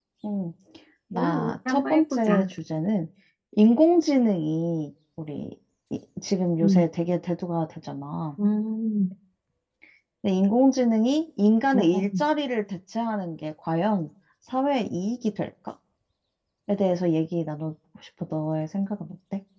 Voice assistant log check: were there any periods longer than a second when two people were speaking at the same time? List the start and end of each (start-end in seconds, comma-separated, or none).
1.1-2.5